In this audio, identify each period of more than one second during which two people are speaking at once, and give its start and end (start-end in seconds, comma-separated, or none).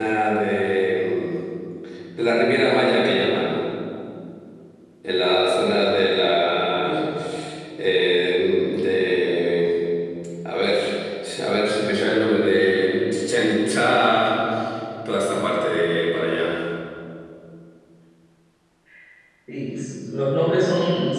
none